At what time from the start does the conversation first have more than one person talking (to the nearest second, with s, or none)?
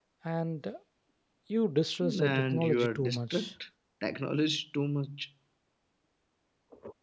2 s